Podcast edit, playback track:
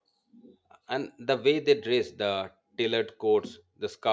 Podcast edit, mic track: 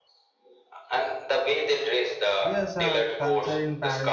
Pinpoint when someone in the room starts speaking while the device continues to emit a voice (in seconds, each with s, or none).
2.5 s